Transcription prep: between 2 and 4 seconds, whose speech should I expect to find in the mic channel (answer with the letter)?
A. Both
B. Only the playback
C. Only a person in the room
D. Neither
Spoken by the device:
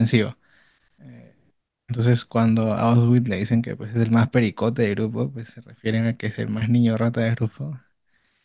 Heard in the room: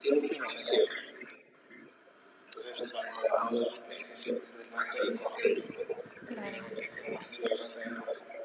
B